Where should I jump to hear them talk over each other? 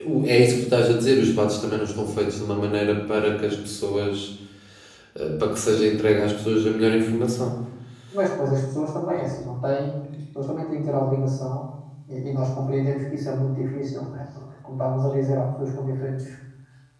none

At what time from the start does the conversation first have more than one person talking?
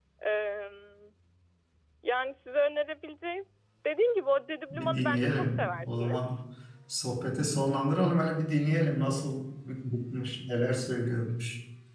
5 s

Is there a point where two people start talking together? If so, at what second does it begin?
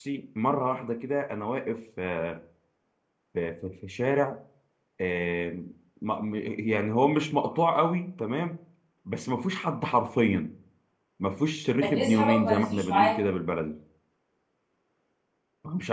12 s

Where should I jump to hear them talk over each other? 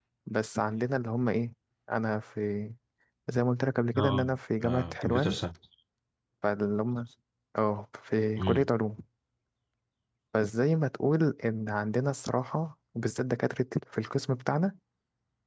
4 s

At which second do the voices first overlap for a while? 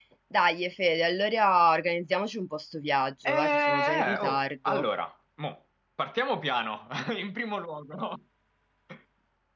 3 s

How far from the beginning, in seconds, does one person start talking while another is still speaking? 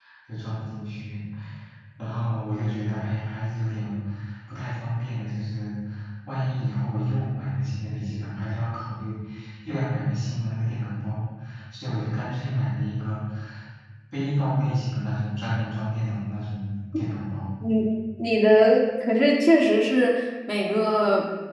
none

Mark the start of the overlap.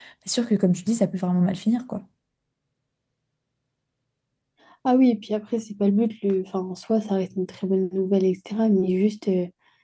none

